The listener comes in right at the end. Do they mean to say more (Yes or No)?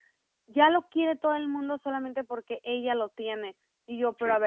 No